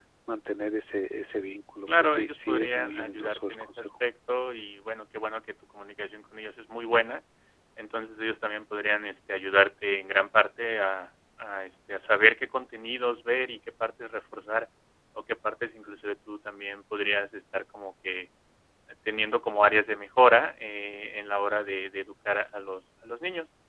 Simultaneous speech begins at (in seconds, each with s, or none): 1.9 s